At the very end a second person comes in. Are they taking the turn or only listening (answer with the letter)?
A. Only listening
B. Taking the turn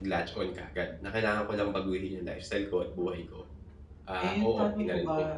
B